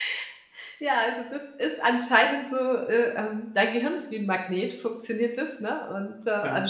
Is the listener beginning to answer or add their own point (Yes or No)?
No